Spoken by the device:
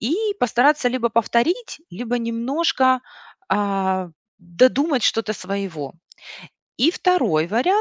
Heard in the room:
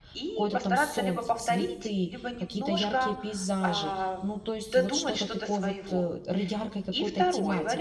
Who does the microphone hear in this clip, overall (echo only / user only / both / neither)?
both